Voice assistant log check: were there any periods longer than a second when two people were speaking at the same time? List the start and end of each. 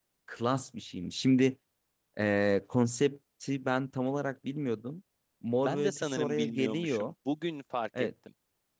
5.6-7.1

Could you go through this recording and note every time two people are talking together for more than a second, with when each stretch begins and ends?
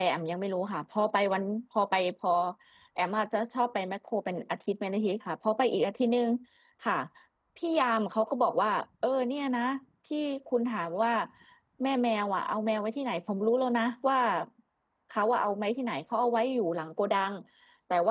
none

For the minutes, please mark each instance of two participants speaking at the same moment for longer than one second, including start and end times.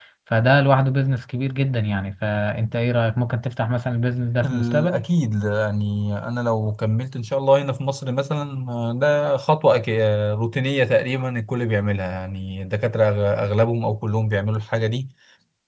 none

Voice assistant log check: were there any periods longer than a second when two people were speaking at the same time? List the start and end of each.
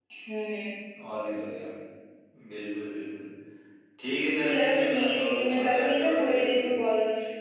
4.5-6.6

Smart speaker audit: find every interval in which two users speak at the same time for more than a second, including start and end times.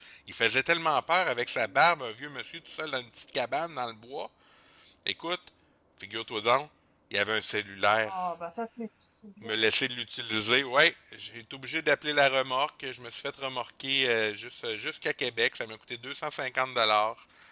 none

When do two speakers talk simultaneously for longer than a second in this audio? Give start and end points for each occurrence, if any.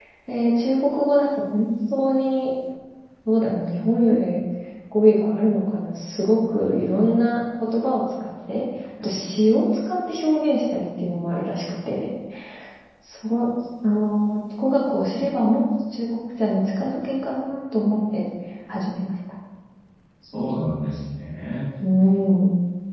none

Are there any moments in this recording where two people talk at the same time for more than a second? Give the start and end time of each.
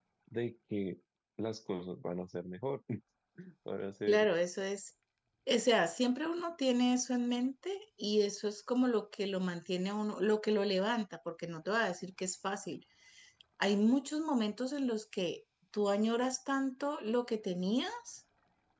none

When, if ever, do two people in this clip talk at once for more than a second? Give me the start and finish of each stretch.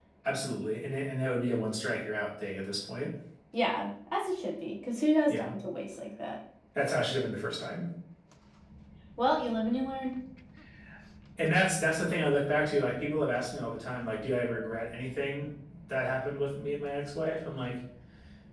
none

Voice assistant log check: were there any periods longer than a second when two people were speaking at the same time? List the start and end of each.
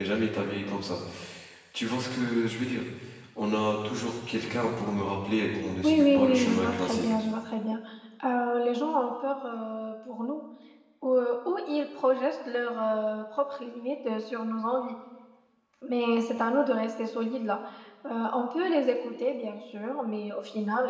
5.8-7.1

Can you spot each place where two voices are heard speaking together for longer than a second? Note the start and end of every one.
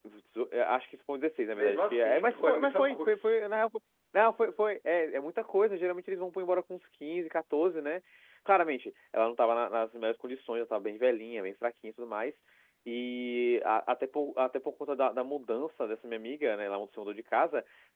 1.5-3.4

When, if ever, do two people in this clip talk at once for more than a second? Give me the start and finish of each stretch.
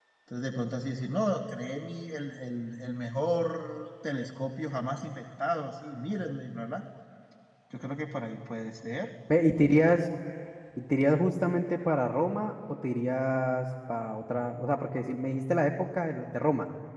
none

